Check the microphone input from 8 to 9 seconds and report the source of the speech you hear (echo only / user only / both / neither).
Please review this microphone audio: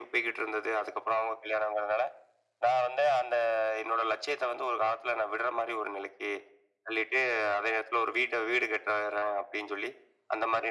echo only